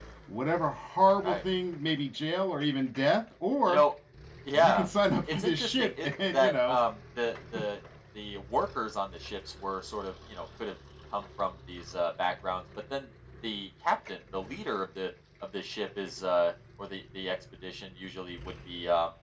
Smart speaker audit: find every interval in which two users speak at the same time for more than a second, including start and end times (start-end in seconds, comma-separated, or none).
5.3-6.8